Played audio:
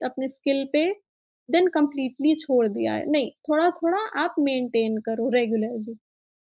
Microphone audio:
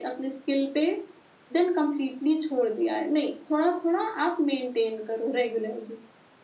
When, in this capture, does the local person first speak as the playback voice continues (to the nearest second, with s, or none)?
none